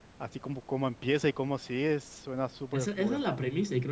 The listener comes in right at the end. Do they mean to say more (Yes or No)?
Yes